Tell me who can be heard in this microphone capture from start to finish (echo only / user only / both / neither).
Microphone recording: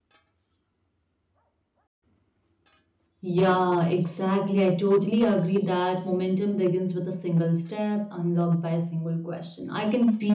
user only